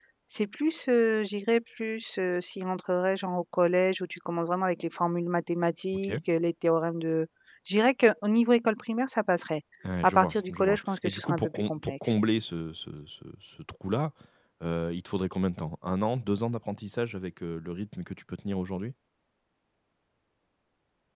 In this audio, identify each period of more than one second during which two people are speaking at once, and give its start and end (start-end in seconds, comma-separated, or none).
10.0-12.1